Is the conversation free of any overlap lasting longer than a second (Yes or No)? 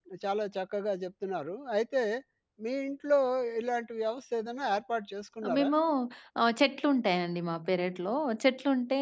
Yes